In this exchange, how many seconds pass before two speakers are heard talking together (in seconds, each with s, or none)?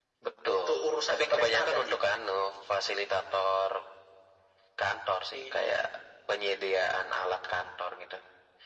0.5 s